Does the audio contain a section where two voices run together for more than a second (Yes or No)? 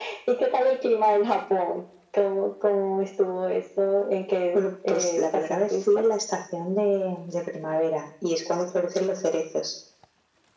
Yes